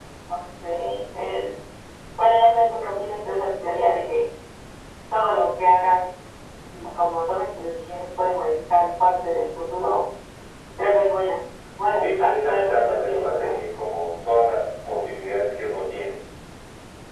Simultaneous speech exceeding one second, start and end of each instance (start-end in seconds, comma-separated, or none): 12.0-13.6